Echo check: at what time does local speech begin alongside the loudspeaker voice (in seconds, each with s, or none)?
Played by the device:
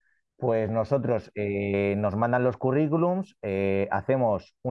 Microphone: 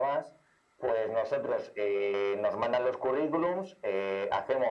none